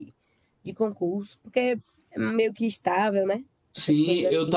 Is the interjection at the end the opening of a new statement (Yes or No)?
Yes